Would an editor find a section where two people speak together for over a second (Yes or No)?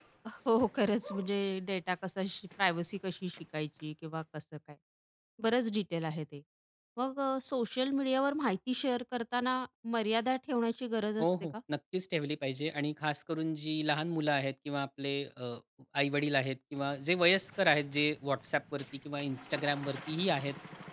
No